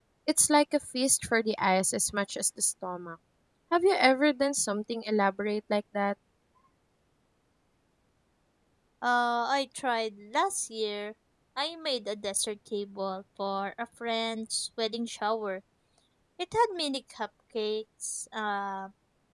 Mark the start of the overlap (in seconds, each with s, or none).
none